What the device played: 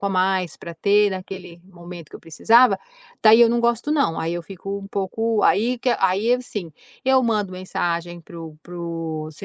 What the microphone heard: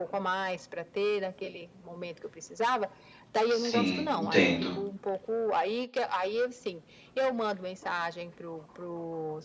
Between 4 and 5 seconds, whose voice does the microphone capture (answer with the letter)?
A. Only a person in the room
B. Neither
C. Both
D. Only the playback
C